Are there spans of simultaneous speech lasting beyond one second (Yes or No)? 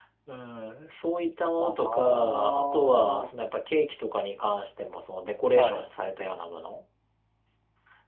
Yes